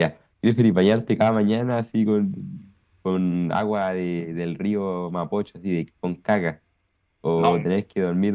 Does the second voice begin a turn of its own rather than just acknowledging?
No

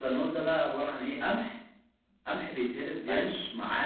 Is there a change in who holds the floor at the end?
No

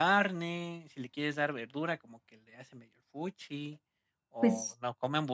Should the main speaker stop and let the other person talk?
No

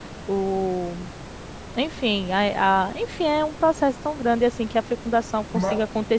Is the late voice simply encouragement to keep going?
Yes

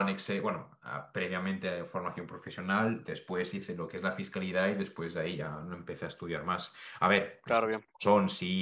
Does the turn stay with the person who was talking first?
Yes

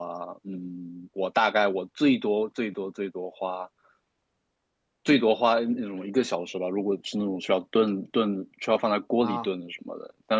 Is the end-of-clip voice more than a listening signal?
No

